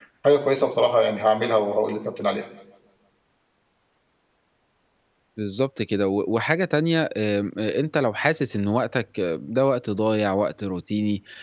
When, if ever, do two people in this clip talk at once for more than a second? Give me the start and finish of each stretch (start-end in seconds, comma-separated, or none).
none